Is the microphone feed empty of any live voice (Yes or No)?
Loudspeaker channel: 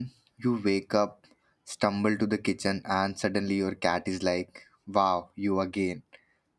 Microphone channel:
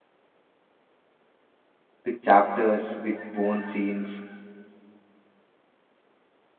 No